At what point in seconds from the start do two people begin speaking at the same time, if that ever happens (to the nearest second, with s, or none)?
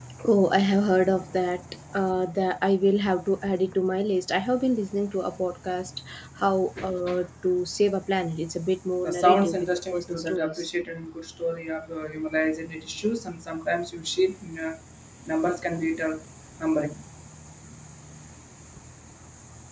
9 s